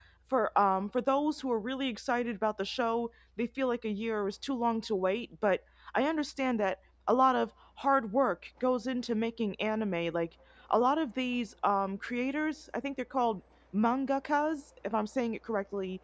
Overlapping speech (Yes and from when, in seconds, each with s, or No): No